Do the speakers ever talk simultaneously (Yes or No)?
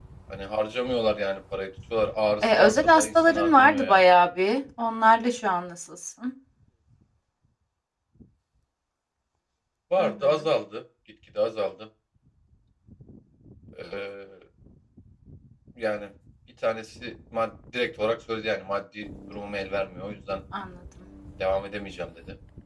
Yes